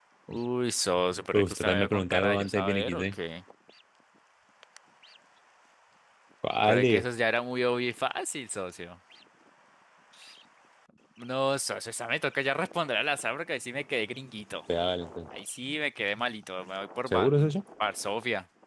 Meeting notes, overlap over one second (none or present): present